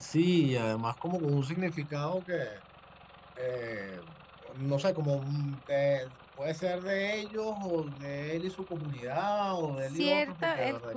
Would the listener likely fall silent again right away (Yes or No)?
No